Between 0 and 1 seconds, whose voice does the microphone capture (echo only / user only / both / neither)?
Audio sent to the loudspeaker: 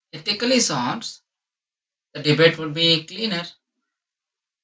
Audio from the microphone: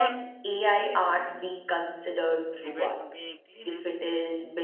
both